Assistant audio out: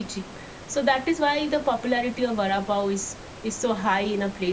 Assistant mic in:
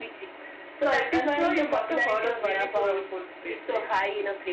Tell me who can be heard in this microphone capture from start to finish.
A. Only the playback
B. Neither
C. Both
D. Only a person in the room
C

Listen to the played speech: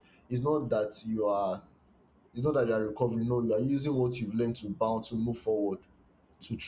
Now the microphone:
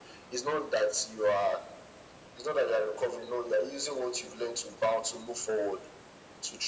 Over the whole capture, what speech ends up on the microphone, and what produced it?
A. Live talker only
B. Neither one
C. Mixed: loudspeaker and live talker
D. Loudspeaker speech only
D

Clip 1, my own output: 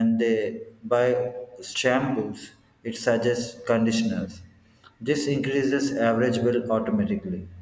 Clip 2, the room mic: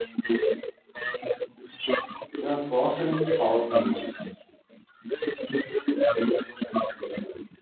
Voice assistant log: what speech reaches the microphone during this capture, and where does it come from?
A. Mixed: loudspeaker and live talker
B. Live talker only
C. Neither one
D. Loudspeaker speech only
A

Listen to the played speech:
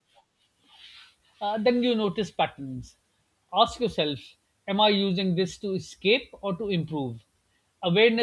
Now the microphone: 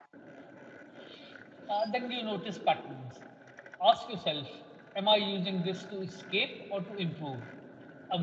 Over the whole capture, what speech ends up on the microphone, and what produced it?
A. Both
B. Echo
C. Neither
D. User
B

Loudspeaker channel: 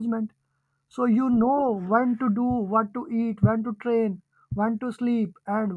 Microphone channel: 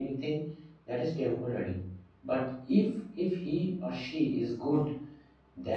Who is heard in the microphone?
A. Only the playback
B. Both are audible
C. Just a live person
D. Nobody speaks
C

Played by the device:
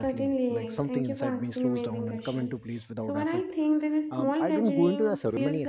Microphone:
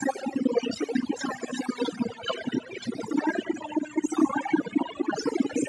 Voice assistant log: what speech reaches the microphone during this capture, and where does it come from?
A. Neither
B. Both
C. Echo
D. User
C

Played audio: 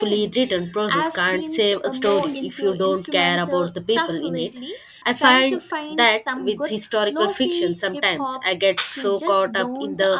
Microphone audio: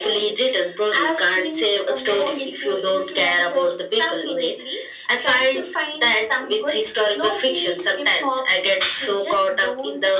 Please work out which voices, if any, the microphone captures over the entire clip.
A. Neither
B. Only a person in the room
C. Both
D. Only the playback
D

